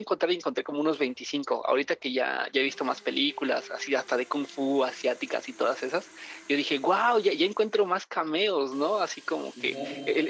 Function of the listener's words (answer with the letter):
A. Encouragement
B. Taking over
A